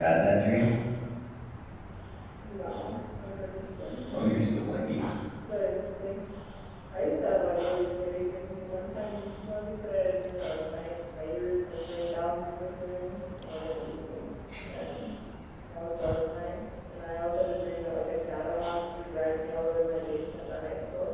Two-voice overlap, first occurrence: none

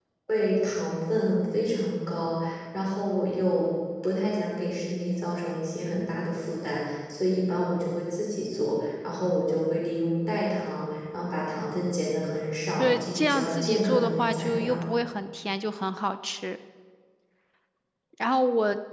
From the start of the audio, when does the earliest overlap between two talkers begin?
12.8 s

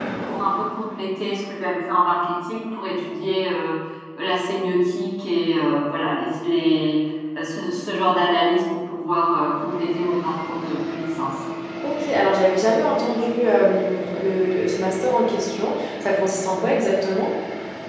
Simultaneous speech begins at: none

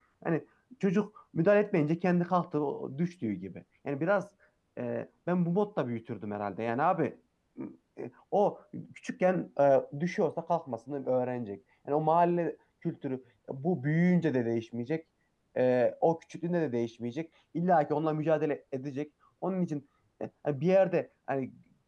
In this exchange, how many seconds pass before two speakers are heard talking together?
none

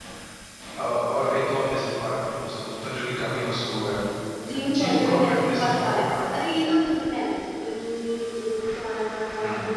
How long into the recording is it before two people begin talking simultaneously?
4.7 s

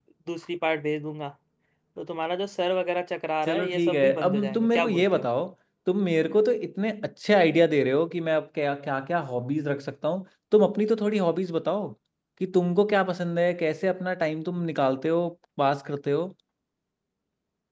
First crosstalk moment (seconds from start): 3.5 s

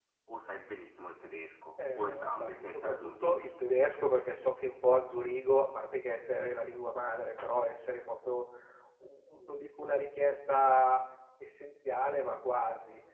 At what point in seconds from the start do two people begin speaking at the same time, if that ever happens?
1.8 s

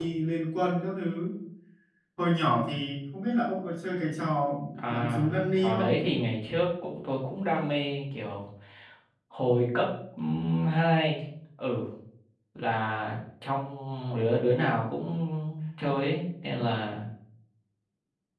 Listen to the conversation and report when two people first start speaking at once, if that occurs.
4.8 s

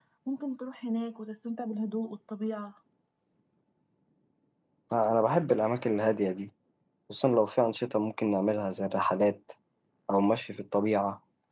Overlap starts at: none

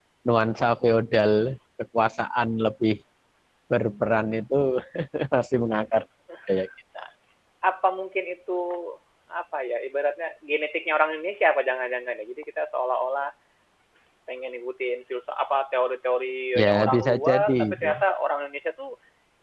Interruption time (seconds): 16.6 s

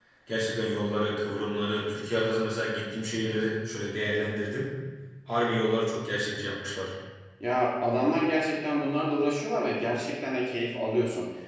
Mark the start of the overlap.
none

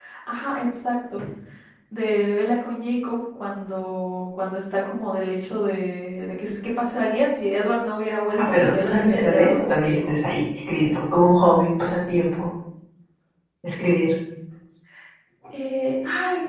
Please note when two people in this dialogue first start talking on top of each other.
8.4 s

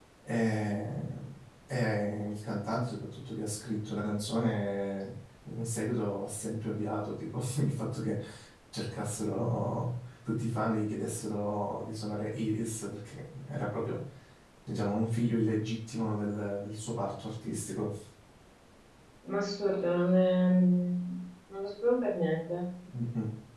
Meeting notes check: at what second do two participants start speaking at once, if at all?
none

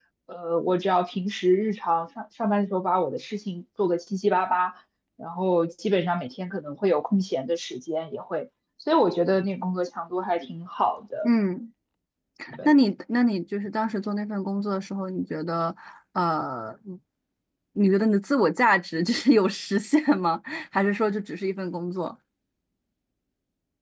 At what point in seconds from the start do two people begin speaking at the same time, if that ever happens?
none

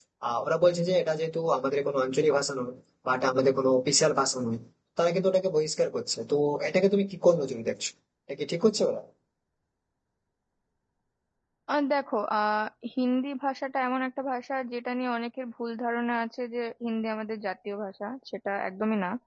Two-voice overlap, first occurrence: none

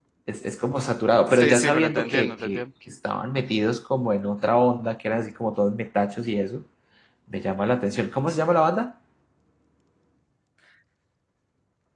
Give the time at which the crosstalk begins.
1.3 s

